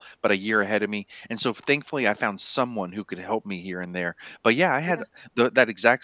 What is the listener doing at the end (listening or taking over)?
listening